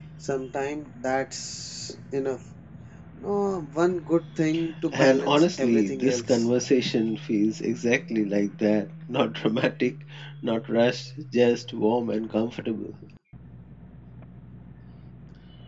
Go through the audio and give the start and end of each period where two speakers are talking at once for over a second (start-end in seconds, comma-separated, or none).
4.9-6.4